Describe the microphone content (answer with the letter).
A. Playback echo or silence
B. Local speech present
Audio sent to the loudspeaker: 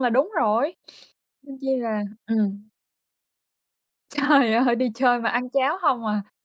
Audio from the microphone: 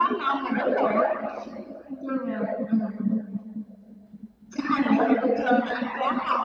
A